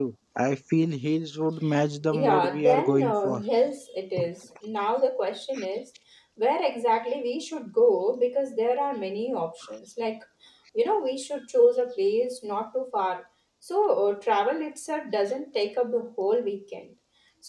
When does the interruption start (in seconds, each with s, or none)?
2.1 s